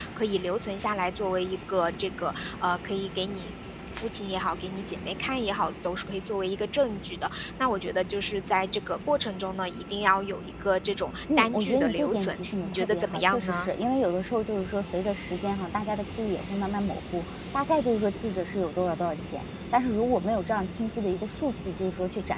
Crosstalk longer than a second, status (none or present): present